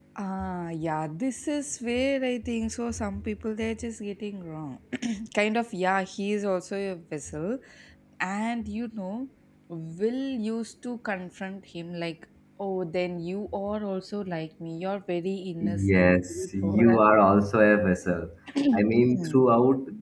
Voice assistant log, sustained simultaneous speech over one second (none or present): present